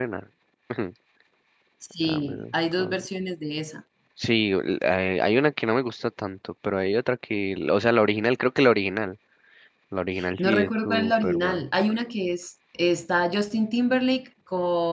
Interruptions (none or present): present